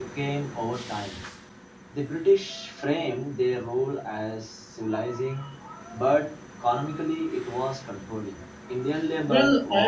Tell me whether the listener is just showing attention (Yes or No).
No